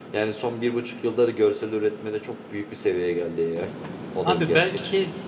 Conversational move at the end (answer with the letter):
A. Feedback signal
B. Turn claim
B